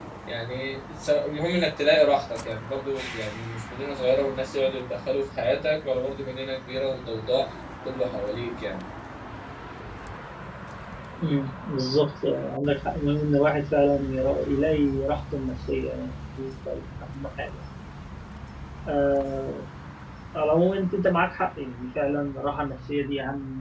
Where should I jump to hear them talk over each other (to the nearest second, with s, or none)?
none